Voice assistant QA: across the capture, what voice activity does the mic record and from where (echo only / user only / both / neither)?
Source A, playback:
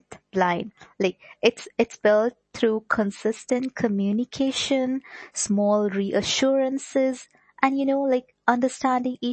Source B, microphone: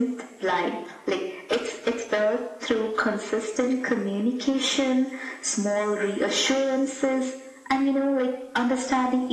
echo only